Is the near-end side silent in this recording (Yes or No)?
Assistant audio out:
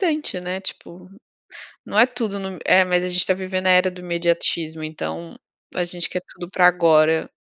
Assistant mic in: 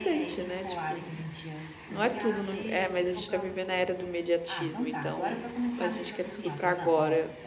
No